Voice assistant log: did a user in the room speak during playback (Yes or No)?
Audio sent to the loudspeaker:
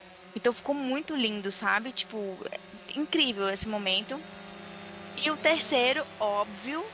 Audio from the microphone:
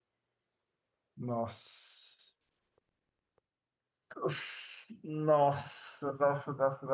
Yes